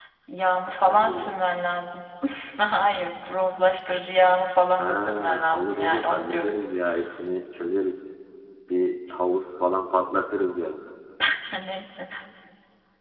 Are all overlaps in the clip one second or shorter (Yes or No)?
No